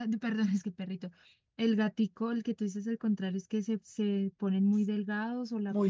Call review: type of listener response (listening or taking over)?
taking over